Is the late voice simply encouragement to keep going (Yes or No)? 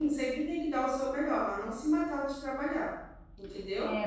No